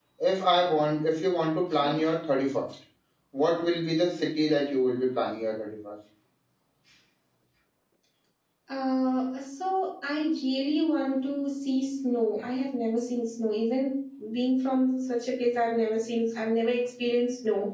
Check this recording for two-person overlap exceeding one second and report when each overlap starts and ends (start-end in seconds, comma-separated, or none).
none